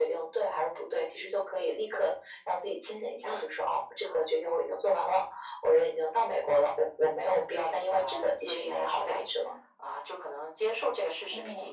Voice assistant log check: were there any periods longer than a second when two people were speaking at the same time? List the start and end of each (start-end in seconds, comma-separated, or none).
7.5-9.3